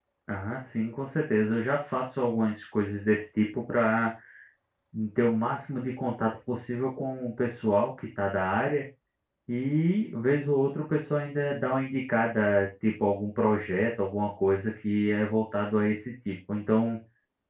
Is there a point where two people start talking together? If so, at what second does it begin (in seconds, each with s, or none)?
none